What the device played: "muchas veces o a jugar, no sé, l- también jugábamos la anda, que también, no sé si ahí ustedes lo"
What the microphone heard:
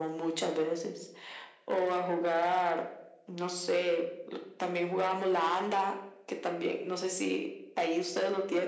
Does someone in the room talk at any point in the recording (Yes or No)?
No